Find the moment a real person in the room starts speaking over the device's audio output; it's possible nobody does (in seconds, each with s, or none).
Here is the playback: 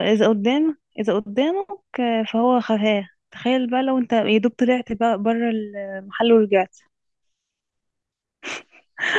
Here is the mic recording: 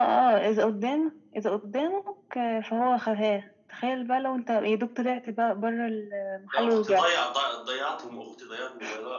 6.5 s